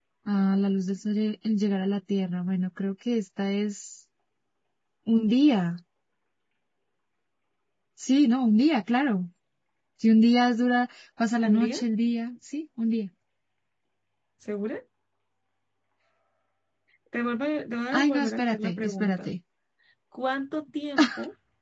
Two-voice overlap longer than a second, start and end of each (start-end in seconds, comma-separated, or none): 17.9-19.3